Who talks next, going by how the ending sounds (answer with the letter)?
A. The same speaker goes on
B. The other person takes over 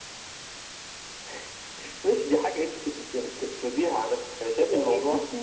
B